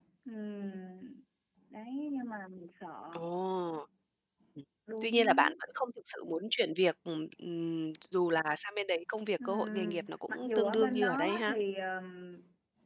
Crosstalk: present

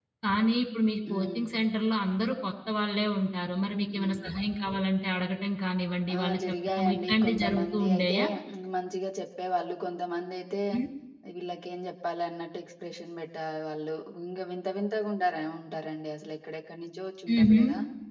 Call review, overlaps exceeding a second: present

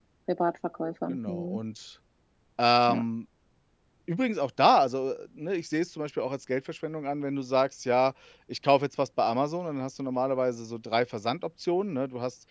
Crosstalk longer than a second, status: none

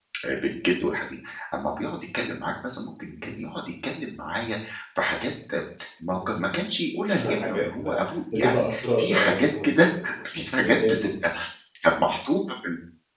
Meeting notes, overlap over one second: present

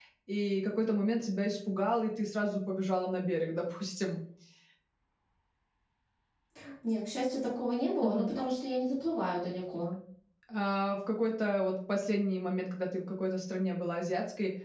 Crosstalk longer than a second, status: none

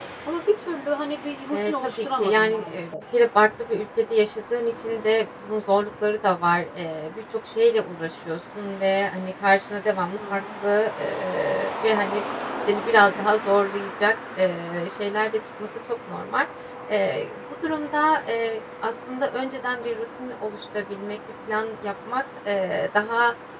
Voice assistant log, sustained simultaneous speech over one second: present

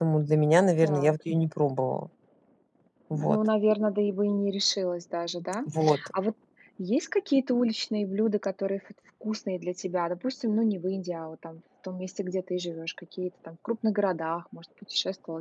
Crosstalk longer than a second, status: none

